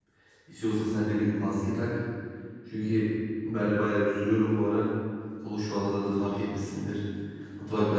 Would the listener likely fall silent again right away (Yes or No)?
Yes